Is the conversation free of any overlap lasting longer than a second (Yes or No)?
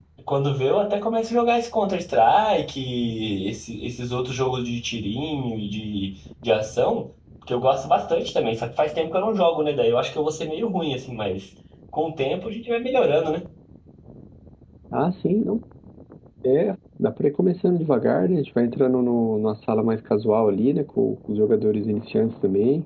Yes